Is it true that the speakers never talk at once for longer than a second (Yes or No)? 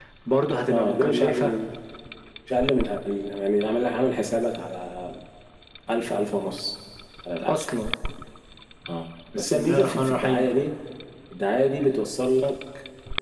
No